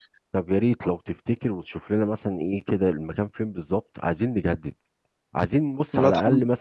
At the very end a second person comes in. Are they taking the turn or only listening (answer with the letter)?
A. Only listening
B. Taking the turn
A